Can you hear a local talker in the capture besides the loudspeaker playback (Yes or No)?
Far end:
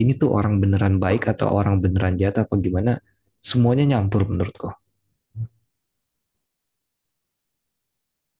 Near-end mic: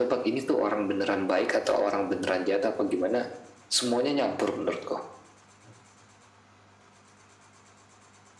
No